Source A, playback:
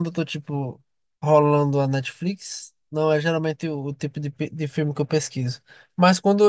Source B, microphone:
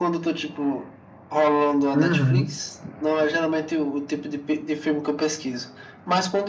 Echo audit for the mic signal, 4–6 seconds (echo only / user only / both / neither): echo only